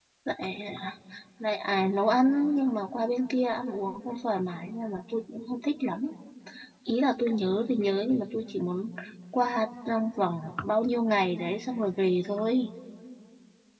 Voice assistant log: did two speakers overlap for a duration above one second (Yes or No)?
No